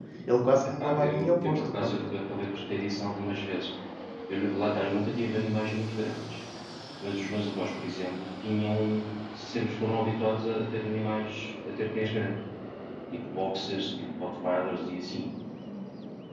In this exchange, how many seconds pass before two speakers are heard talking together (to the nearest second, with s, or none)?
1 s